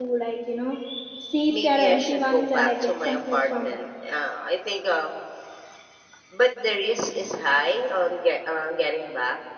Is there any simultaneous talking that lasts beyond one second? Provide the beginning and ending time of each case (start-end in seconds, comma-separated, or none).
1.5-3.8